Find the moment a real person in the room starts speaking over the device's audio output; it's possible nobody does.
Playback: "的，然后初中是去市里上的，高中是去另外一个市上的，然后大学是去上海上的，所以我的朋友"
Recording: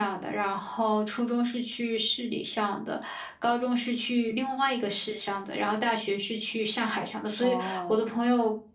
7 s

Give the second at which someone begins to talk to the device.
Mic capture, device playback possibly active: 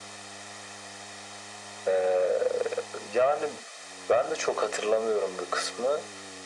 none

